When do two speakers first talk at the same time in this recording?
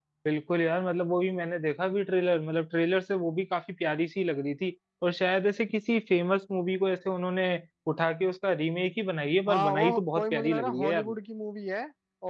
9.5 s

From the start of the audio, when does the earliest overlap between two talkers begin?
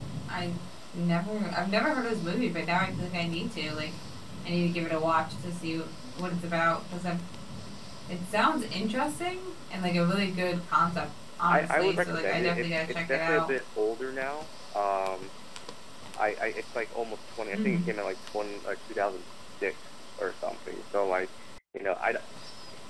11.5 s

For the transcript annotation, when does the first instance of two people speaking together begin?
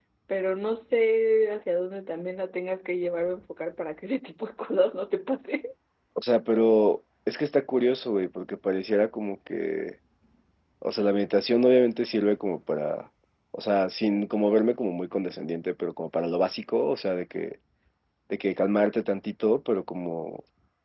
none

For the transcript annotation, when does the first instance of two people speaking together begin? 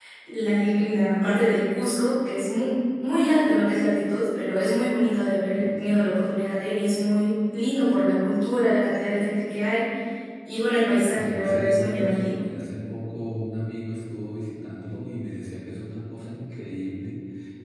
11.1 s

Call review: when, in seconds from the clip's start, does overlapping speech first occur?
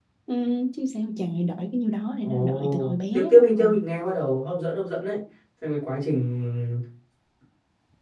2.2 s

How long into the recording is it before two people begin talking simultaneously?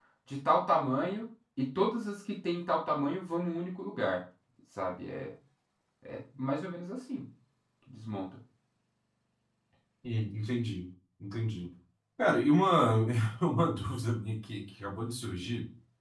none

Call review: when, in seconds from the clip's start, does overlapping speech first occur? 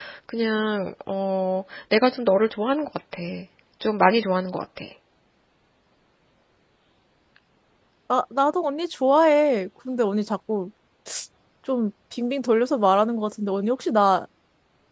none

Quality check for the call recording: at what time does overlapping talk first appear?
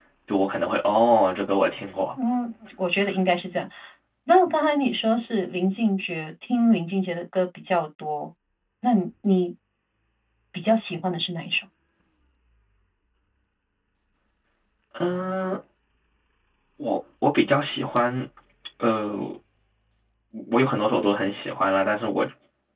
none

